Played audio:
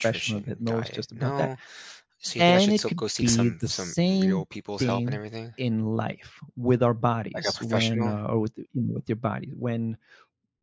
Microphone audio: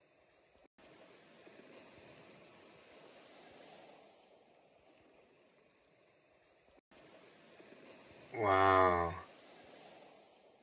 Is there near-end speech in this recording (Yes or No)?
Yes